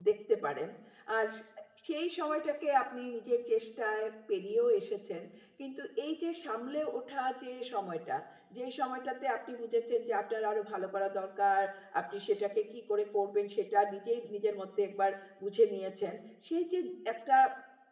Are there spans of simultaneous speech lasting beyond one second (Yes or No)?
No